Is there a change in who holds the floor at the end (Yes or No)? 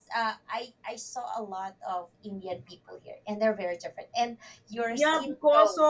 Yes